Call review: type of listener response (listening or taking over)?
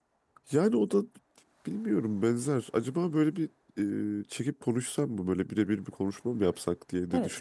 taking over